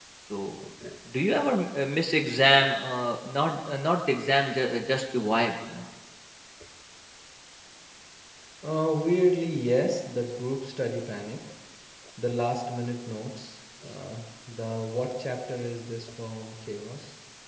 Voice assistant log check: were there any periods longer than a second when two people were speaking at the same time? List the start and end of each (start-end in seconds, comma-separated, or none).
none